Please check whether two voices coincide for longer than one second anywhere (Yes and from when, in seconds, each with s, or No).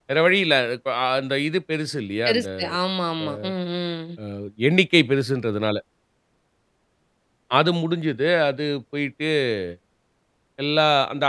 No